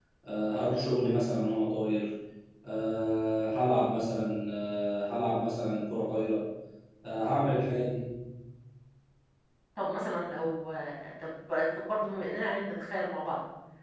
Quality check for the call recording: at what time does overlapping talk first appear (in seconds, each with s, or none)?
none